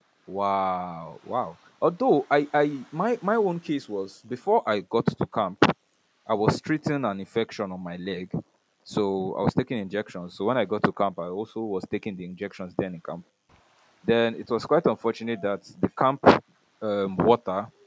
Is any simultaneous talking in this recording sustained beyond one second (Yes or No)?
No